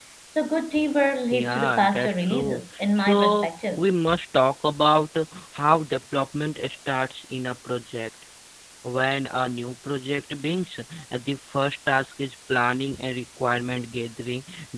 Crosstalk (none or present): present